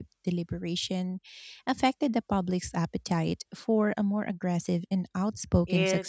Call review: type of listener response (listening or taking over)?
taking over